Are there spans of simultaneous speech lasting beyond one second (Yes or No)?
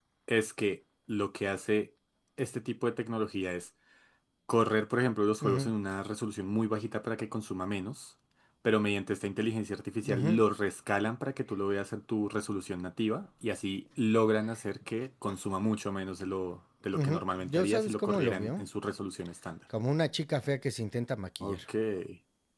Yes